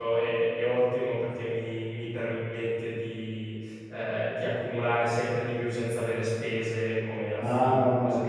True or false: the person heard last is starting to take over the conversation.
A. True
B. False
A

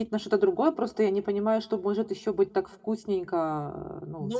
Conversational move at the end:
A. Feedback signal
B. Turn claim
B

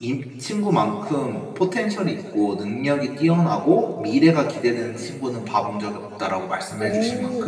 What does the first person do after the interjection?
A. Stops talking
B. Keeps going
A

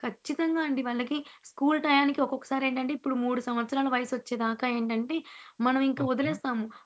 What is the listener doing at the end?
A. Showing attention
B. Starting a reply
A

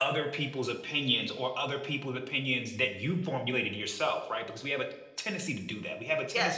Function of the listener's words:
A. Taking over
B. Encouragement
B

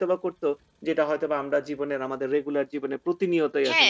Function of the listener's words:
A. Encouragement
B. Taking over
B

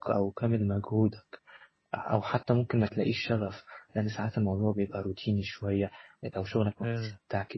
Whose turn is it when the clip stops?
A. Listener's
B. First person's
B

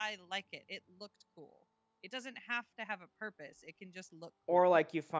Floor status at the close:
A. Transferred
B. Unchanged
A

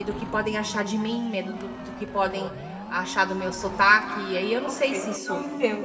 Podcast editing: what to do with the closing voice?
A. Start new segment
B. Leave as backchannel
A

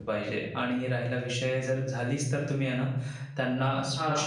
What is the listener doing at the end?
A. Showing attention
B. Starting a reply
A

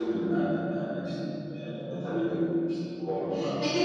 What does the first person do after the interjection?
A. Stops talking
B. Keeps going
A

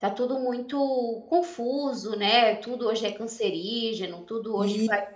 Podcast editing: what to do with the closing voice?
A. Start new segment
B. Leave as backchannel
B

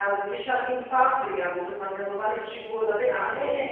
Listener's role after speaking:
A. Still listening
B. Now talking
B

